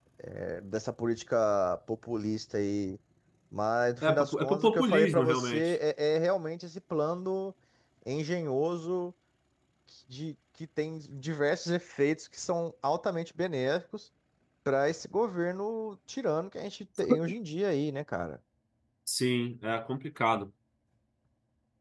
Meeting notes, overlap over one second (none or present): present